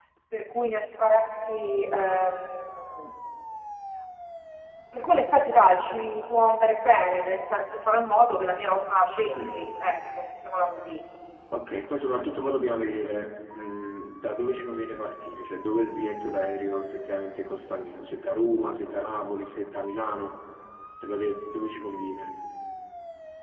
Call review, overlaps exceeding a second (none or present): none